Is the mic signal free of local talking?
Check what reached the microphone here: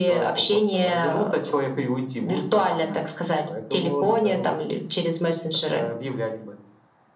Yes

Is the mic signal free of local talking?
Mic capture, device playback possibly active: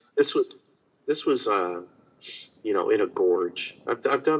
Yes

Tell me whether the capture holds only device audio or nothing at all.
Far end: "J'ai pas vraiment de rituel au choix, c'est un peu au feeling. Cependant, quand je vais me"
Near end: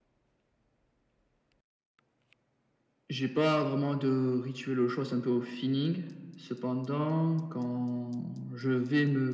Yes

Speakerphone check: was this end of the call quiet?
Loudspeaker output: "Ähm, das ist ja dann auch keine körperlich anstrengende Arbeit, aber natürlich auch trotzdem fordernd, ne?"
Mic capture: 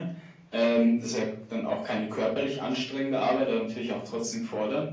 Yes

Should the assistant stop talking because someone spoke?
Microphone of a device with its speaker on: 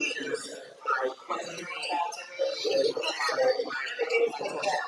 No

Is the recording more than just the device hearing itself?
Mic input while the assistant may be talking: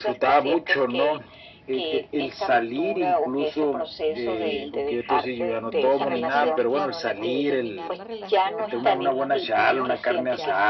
Yes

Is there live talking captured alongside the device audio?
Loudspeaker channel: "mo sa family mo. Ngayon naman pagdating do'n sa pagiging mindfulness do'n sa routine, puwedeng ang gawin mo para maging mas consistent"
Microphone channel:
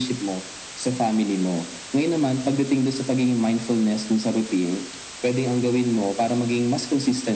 No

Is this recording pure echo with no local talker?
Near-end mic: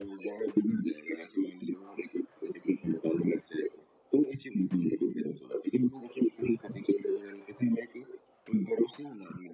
Yes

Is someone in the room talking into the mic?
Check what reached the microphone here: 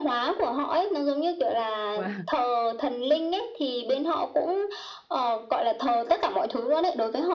Yes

